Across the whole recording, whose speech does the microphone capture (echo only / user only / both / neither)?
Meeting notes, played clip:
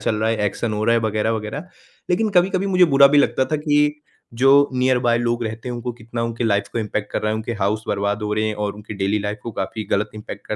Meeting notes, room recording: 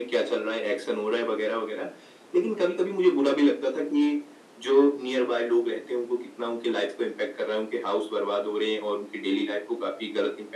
echo only